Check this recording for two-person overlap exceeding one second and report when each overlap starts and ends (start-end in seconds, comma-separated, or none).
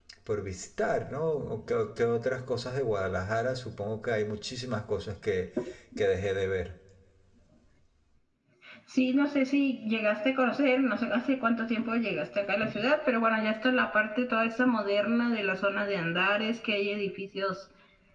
none